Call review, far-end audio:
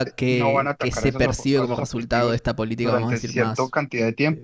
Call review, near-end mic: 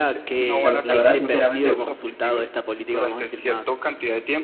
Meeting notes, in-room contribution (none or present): present